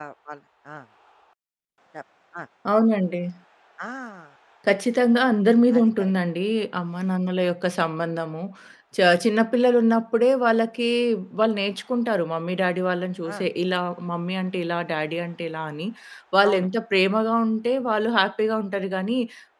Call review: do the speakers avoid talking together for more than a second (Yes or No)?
Yes